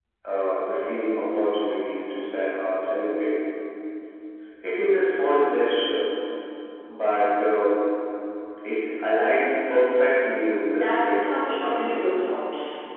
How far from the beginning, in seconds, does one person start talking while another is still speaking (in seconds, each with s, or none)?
10.7 s